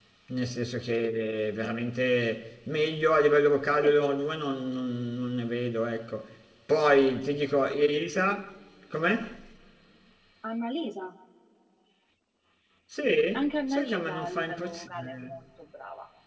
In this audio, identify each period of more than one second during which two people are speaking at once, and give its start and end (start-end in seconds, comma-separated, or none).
13.3-15.4